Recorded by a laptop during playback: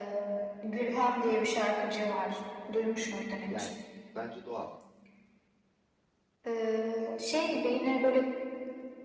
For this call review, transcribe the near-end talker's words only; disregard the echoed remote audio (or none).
yani bence doğal.